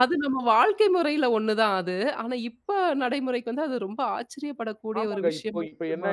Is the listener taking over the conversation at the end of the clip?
Yes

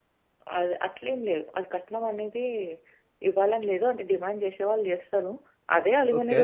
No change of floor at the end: Yes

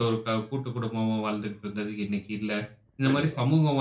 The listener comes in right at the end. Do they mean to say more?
No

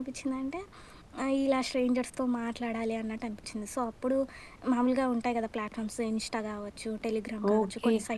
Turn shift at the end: Yes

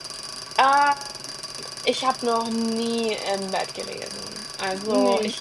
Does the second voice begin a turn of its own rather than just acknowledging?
No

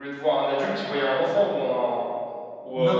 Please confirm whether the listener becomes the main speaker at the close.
Yes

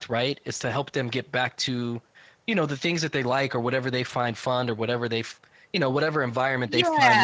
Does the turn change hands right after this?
No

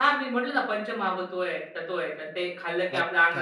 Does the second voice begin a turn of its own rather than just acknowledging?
Yes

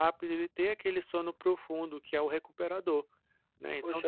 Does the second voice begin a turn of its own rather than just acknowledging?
Yes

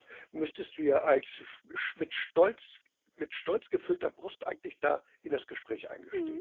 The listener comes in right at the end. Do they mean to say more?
Yes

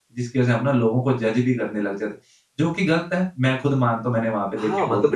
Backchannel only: No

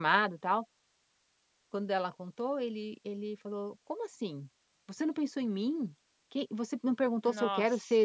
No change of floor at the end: Yes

